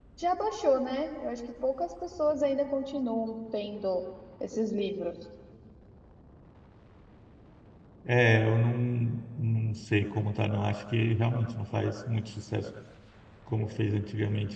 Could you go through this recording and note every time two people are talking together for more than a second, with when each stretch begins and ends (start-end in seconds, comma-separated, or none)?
none